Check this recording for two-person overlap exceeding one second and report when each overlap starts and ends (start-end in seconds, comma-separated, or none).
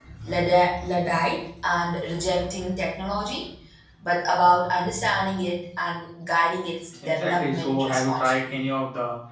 7.0-8.5